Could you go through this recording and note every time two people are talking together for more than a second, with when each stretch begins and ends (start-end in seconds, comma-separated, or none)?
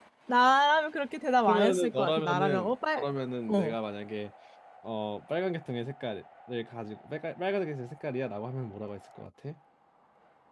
1.5-3.0